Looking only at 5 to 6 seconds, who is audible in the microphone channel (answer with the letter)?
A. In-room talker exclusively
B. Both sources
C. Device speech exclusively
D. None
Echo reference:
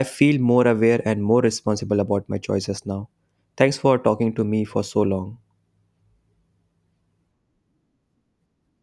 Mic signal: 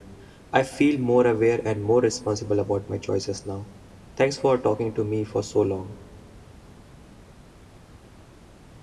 C